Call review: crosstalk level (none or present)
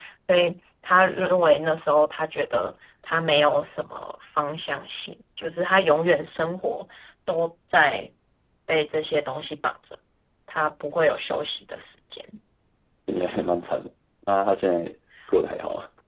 none